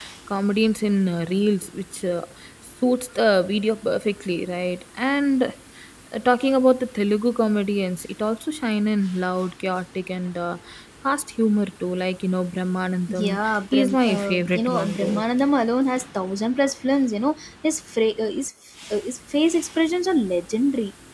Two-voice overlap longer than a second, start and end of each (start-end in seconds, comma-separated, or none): 13.1-15.2